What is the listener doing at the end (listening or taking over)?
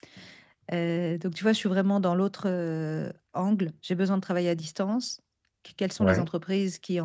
listening